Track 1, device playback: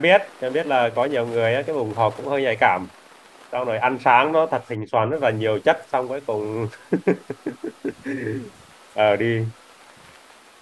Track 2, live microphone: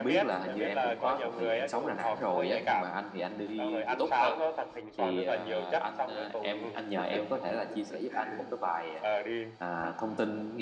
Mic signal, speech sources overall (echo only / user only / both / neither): both